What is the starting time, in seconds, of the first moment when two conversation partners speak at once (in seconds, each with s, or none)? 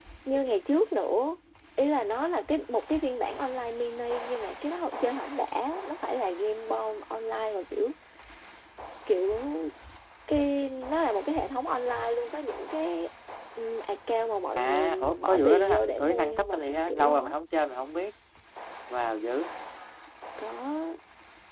14.6 s